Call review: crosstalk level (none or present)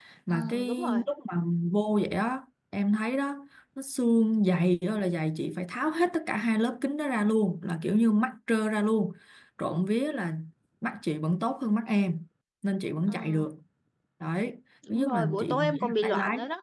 present